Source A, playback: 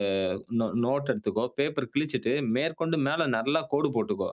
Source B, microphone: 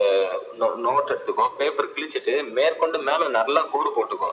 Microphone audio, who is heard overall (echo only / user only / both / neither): echo only